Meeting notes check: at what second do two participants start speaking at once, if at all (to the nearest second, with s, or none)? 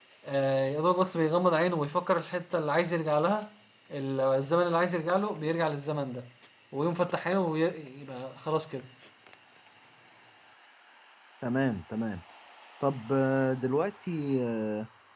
none